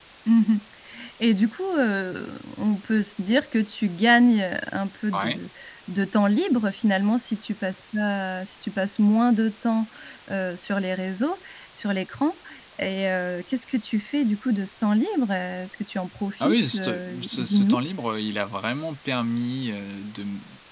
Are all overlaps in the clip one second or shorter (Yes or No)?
No